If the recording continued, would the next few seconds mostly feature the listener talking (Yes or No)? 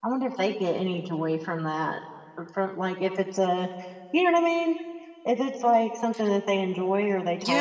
Yes